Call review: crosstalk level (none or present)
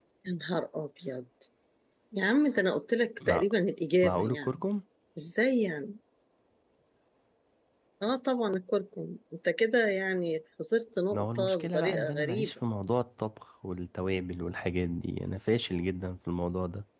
present